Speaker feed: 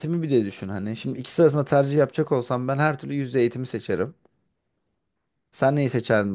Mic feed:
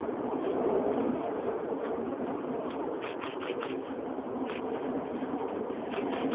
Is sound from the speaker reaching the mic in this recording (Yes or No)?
No